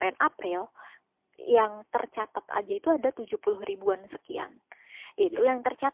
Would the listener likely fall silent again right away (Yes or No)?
Yes